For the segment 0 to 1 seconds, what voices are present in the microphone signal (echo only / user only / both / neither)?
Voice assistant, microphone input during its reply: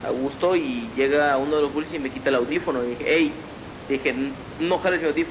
echo only